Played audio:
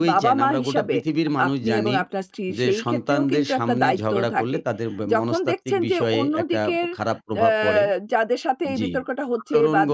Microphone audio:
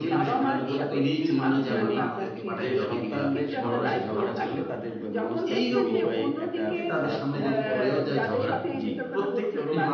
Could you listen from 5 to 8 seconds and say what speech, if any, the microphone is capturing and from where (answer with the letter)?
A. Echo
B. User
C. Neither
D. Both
D